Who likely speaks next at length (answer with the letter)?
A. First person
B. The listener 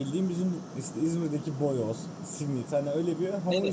B